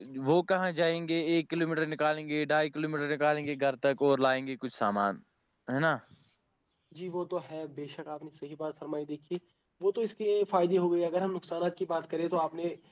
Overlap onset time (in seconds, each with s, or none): none